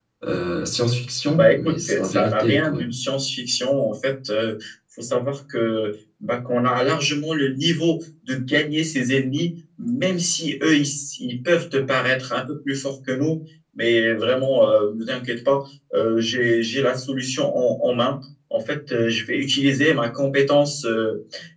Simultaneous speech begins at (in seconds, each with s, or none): 1.4 s